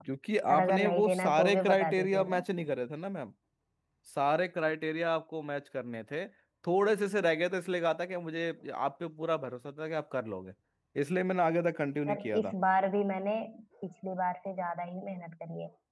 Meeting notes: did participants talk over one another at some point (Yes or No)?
Yes